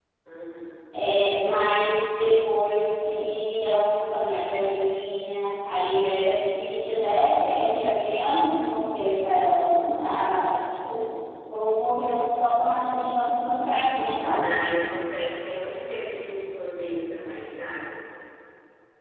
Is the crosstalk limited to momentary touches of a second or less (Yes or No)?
Yes